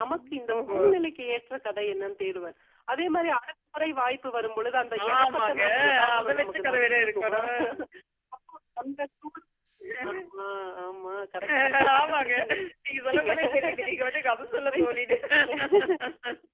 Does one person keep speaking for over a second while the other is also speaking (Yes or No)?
Yes